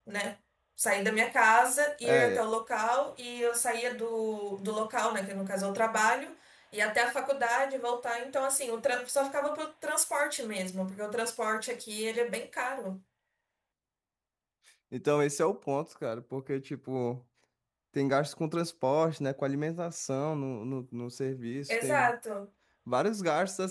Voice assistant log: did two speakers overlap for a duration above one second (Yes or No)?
No